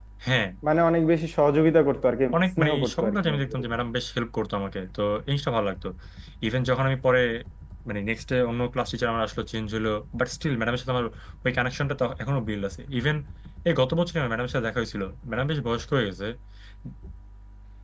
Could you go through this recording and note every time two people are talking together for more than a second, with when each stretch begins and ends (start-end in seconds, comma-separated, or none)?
2.3-3.6